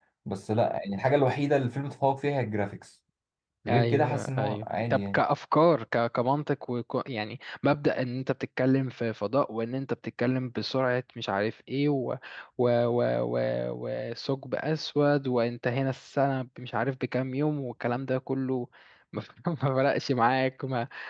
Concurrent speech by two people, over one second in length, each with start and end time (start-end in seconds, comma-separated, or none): 3.7-5.2